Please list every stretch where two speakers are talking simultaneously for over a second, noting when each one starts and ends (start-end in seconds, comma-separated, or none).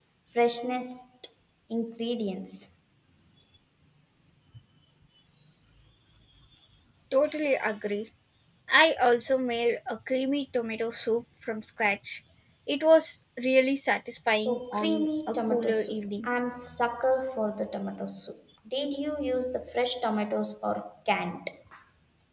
14.5-16.3